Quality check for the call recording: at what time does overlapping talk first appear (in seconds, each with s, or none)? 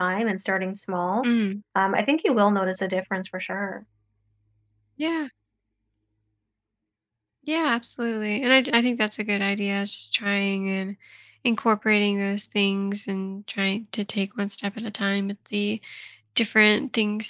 none